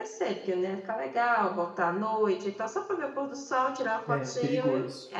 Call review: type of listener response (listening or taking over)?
taking over